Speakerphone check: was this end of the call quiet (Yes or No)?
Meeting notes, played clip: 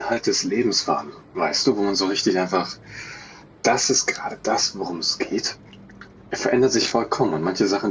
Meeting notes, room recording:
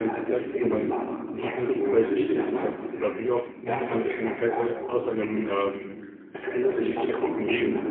No